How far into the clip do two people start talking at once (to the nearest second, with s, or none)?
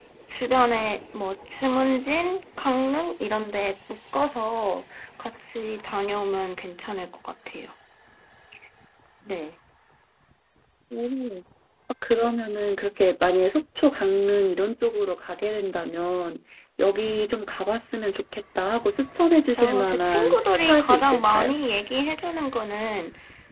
20 s